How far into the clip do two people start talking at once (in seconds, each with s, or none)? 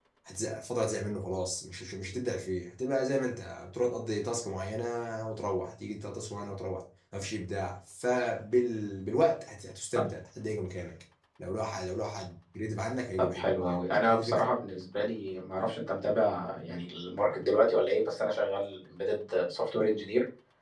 13.2 s